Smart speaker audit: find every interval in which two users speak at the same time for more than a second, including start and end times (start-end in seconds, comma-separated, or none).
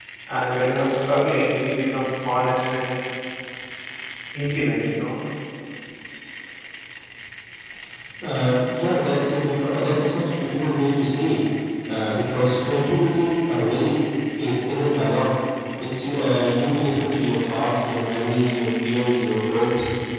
none